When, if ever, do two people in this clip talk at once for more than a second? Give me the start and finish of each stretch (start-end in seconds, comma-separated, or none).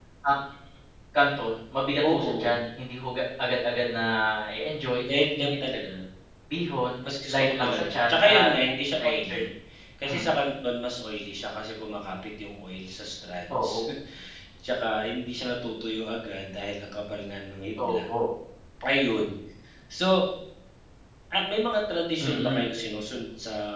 7.3-8.5